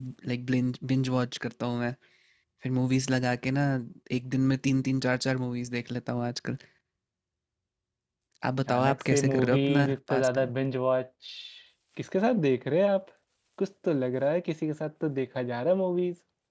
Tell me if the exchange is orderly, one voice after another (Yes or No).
No